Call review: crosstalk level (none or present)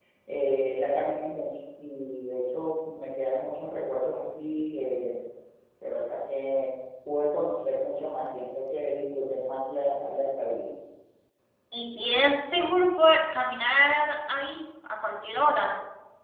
none